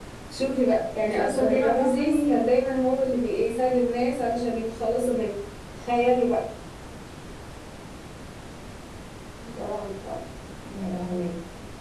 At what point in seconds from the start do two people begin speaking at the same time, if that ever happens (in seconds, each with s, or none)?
1.0 s